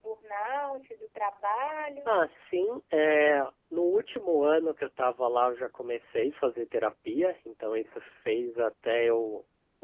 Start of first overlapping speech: none

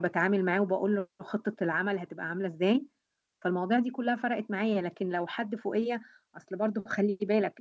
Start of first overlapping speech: none

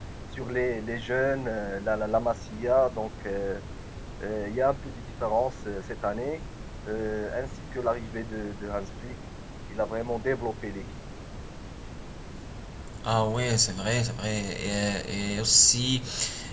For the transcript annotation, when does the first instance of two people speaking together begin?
none

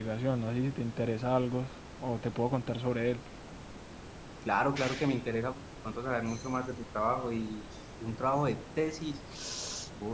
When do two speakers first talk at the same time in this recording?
none

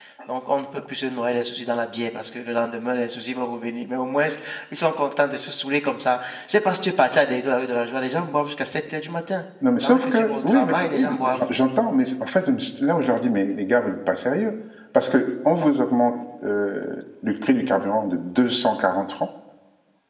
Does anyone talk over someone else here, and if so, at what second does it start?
10 s

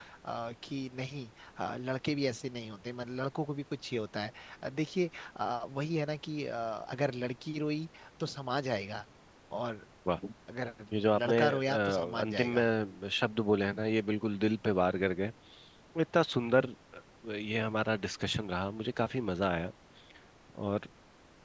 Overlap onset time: 11 s

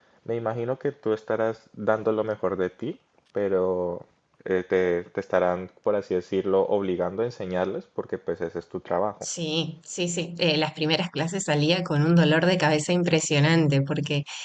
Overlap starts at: none

